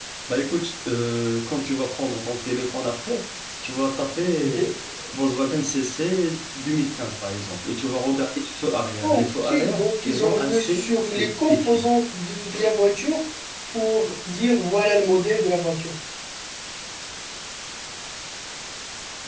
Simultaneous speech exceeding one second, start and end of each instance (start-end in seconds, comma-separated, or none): 9.0-11.8